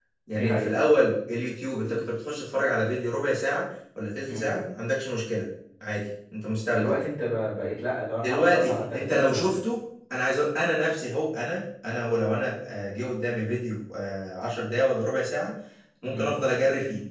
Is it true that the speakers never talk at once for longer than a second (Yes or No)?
No